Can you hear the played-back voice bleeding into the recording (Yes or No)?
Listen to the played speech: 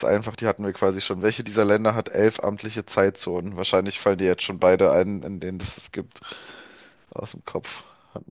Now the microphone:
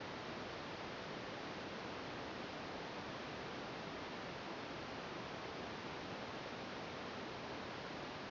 No